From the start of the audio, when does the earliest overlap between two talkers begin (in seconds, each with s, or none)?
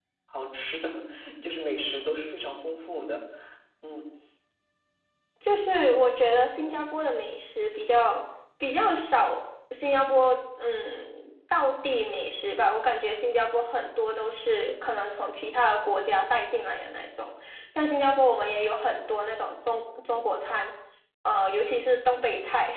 none